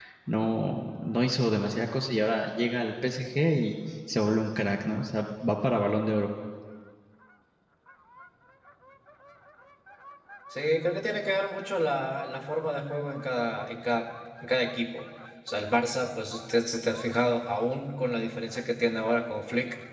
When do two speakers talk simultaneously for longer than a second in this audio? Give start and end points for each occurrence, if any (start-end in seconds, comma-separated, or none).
none